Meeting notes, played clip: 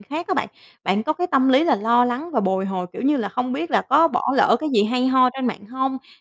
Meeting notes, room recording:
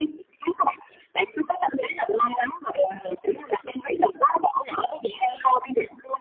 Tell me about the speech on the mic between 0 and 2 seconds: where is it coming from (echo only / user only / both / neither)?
echo only